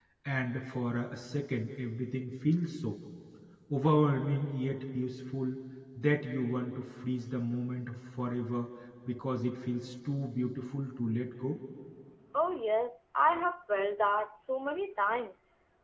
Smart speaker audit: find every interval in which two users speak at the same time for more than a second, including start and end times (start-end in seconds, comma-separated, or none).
none